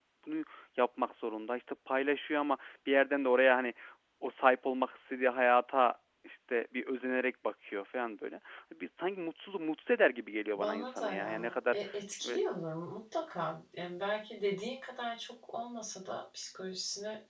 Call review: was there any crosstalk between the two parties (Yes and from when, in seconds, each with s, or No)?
Yes, from 10.6 s